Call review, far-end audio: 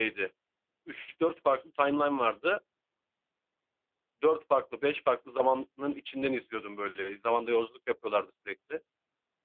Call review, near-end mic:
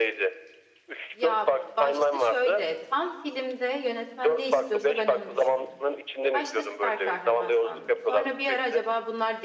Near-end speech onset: 1.1 s

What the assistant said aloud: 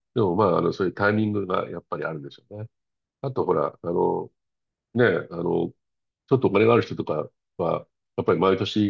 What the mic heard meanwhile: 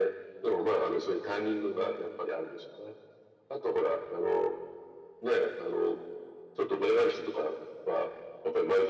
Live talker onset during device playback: none

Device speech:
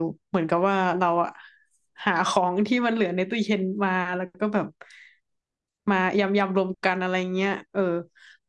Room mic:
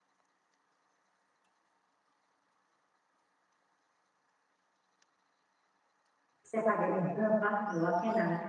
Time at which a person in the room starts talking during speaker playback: 6.5 s

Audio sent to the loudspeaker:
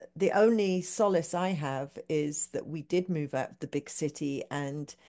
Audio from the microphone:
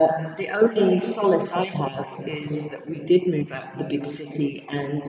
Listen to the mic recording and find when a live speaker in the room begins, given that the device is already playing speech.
none

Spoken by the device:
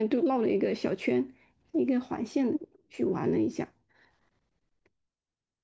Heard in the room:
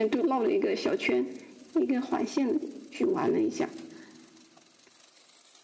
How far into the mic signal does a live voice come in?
none

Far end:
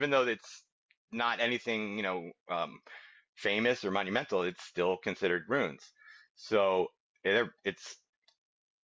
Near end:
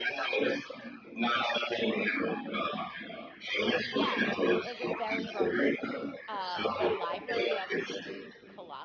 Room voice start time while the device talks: 3.8 s

